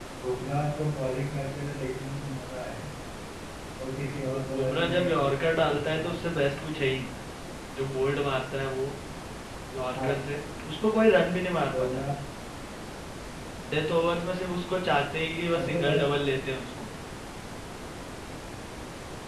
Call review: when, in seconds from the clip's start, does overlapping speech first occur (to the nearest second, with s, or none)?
4 s